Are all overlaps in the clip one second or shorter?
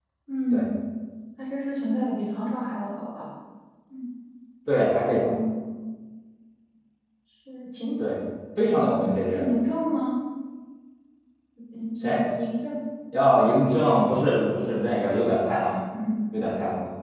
Yes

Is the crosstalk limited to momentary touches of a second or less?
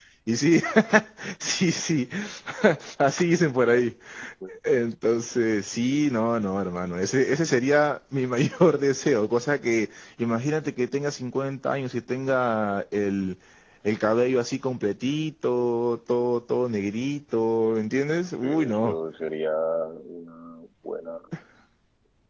Yes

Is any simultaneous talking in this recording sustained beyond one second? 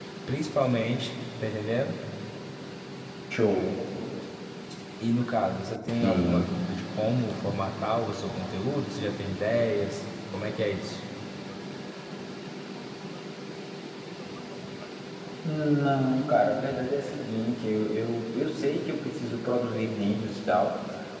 No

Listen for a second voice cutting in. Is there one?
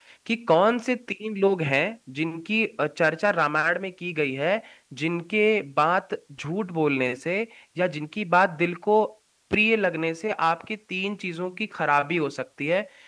No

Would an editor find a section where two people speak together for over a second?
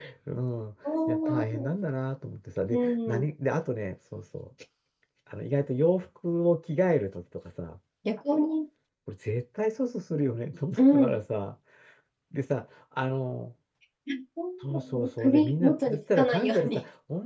Yes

